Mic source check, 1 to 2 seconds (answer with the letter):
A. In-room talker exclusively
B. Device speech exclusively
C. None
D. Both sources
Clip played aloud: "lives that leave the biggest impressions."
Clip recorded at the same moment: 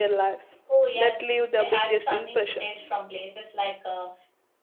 D